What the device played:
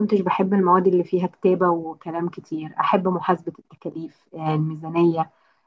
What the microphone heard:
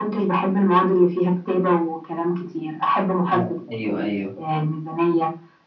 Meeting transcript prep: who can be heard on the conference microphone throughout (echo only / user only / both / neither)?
both